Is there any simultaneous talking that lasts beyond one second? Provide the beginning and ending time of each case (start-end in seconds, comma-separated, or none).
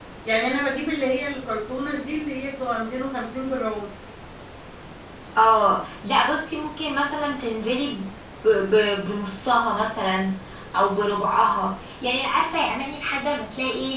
none